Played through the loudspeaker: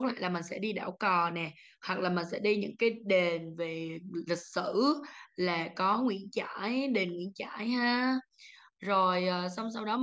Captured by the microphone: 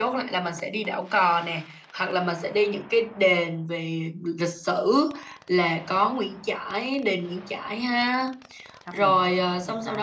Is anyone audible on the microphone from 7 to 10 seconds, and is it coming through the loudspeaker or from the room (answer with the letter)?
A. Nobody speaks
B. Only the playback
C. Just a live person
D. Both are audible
D